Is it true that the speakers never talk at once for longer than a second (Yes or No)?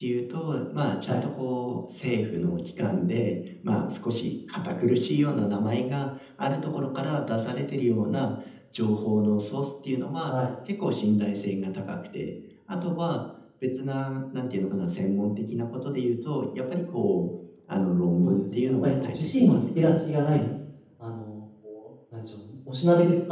No